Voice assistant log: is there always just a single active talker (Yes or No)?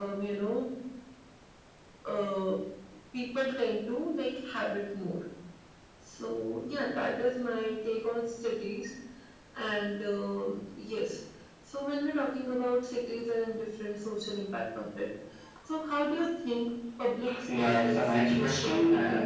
No